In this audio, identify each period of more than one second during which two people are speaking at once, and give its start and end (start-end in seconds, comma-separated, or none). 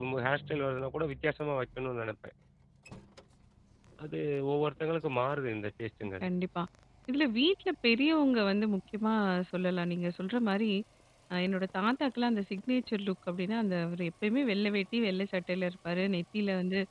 none